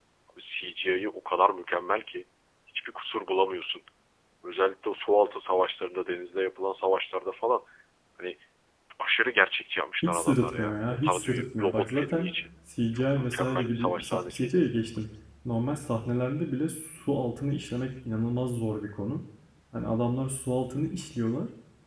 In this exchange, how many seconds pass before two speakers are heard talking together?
10.0 s

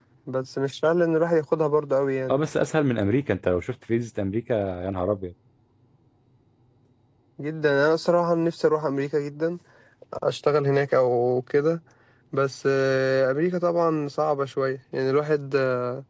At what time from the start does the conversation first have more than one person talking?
none

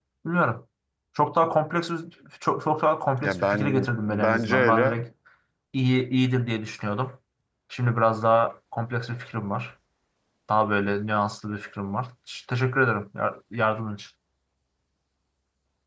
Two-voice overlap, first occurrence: 3.2 s

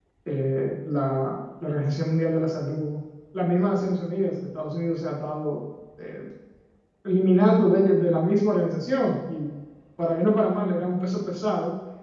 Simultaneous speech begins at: none

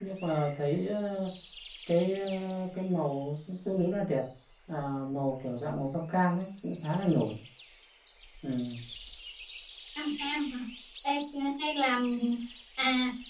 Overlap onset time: none

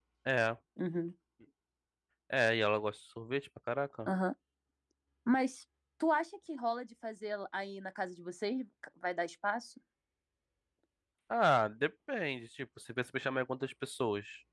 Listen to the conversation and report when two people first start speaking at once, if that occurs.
none

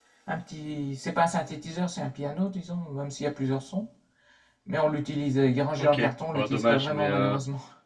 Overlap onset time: 5.7 s

